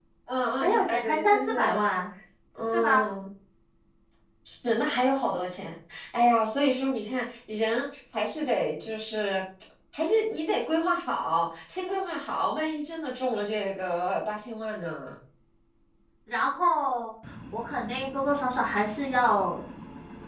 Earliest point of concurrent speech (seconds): 1 s

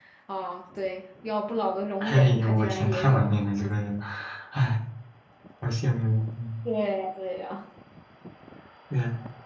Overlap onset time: 2 s

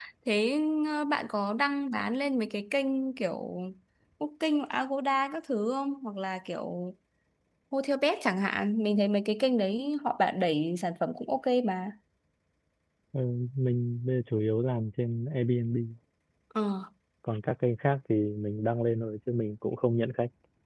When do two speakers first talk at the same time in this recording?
none

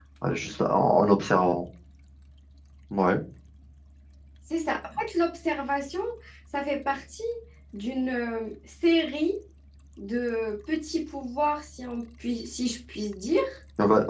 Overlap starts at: none

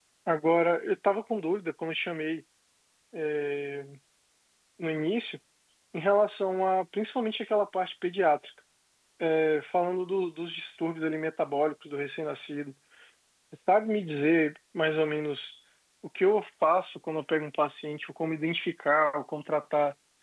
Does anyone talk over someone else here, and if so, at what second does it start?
none

